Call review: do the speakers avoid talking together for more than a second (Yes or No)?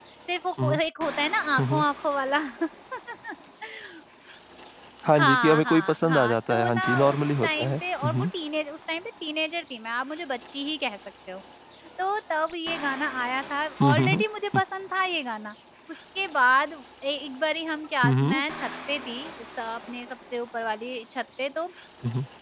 No